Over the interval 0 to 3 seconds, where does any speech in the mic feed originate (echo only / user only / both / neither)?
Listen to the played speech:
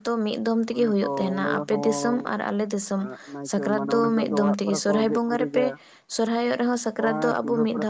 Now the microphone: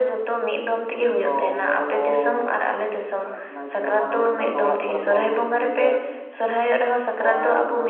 echo only